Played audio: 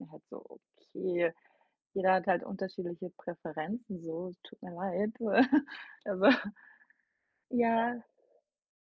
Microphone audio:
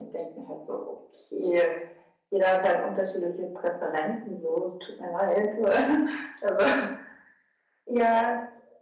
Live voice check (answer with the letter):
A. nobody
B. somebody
A